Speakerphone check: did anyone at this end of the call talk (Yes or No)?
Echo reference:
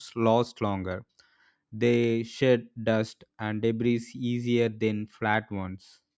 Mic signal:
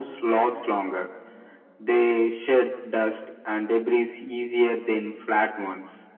No